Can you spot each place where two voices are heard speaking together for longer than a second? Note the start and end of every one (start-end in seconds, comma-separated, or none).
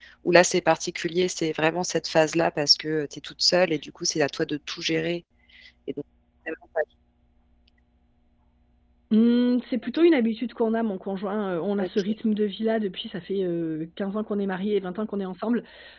none